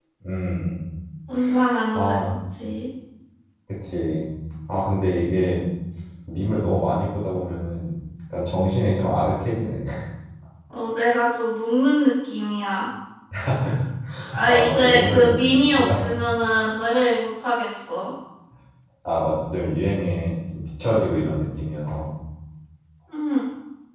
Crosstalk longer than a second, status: present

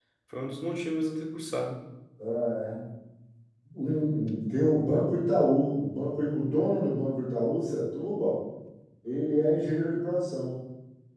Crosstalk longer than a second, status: none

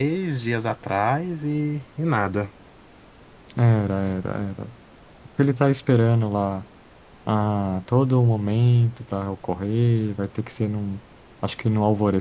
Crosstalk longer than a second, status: none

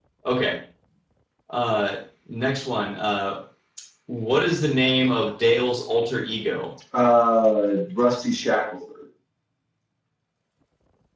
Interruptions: none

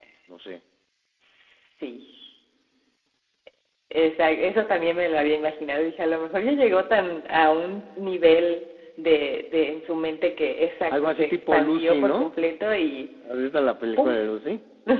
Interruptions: present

